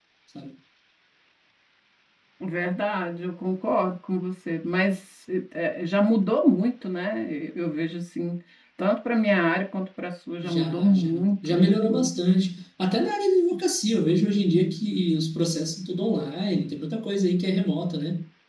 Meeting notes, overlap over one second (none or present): present